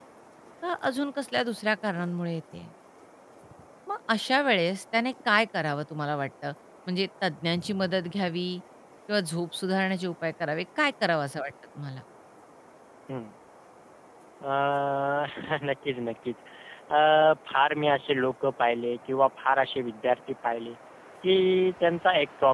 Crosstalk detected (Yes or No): No